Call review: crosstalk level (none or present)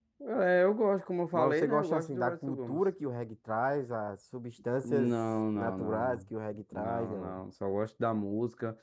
present